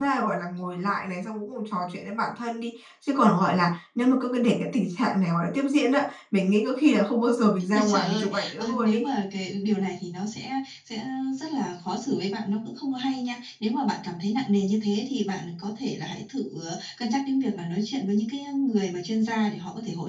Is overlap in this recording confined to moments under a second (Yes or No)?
No